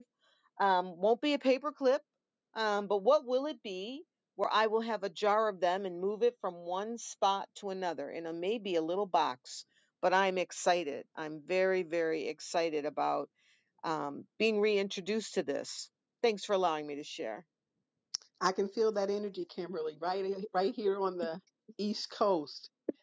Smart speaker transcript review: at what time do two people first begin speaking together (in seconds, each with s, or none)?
none